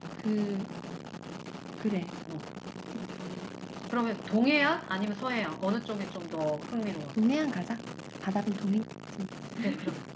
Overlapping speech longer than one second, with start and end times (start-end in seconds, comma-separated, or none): none